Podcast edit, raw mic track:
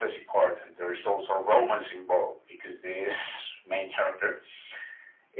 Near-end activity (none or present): none